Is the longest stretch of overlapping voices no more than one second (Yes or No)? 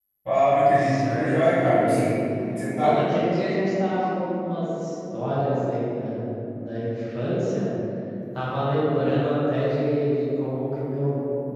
No